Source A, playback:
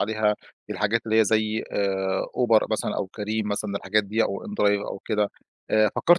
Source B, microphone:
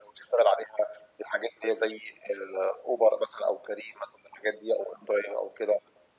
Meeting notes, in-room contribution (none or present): none